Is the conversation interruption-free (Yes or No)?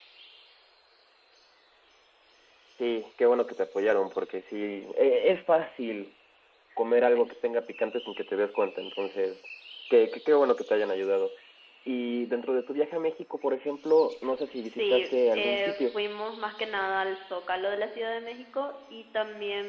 No